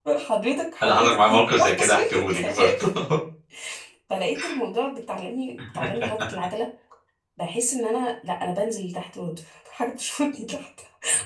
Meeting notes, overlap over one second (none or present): present